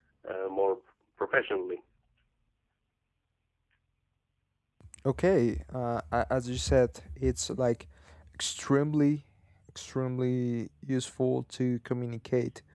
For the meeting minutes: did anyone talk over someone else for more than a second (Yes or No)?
No